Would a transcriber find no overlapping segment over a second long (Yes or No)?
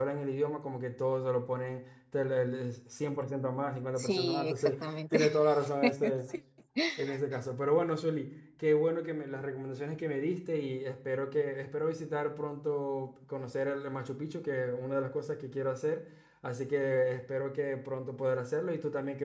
No